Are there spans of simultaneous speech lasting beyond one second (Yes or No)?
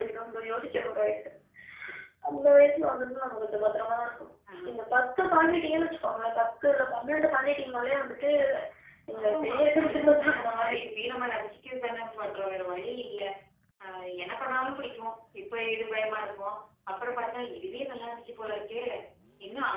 Yes